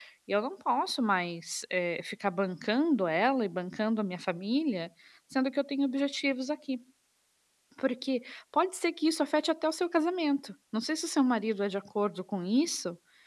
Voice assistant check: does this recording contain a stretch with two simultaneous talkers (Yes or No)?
No